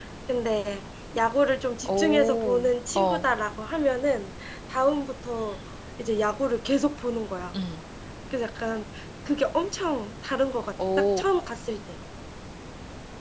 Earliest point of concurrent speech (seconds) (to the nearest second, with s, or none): 2 s